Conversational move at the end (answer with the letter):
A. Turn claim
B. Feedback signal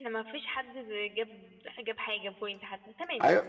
A